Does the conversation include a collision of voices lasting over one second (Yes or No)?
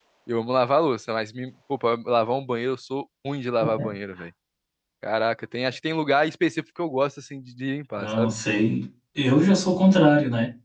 No